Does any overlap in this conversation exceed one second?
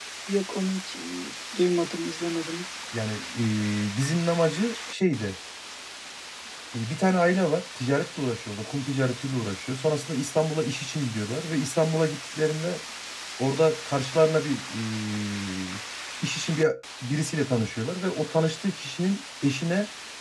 No

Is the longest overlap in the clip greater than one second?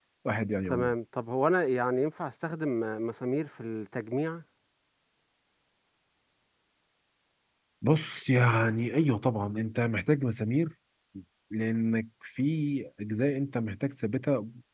No

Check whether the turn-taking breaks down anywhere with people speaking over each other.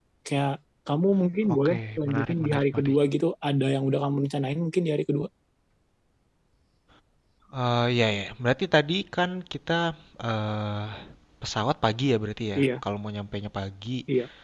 Yes, from 1.4 s

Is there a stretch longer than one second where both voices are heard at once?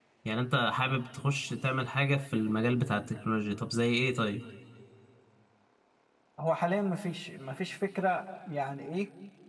No

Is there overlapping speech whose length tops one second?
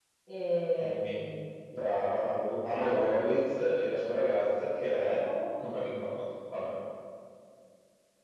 No

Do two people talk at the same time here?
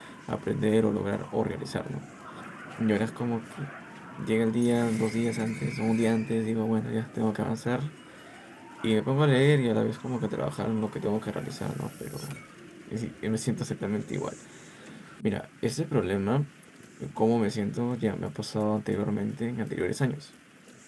No

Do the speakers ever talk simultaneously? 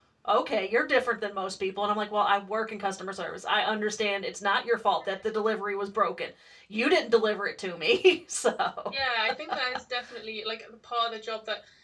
No

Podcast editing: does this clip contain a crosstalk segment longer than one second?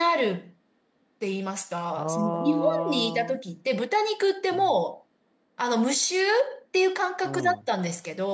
Yes, from 2.0 s

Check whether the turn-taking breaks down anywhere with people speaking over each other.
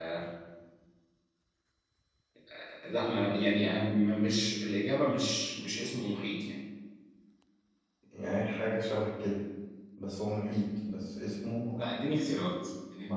No

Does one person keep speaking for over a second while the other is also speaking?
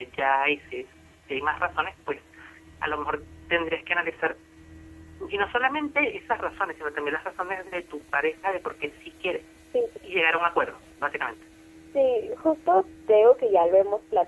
No

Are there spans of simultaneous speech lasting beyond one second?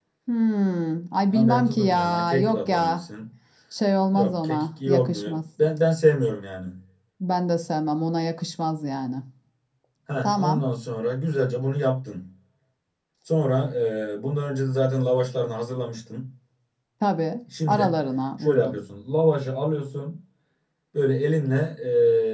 Yes, from 1.3 s

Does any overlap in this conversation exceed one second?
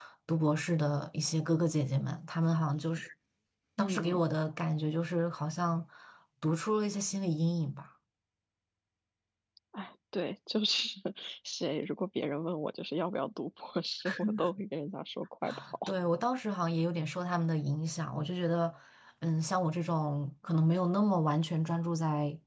No

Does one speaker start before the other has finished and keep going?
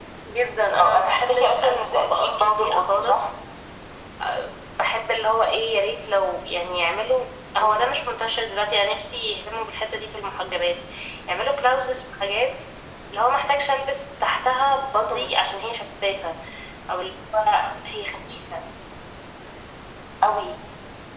Yes, from 0.8 s

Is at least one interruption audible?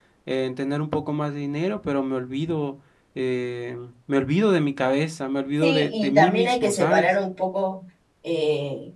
Yes, from 5.6 s

